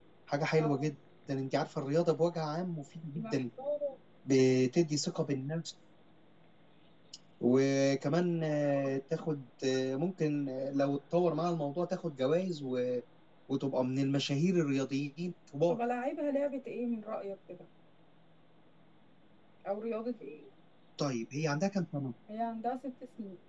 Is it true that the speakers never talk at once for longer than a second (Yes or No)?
Yes